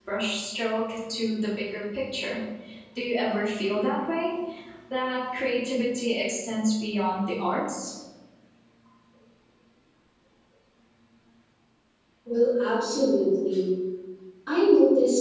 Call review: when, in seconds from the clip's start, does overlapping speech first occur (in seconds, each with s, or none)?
none